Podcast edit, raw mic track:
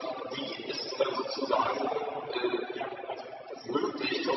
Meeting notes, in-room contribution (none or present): none